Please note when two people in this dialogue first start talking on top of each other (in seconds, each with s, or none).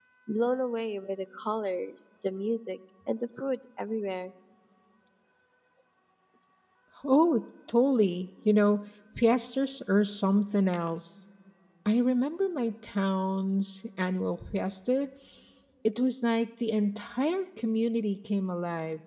none